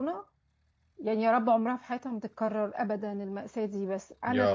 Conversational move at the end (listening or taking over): listening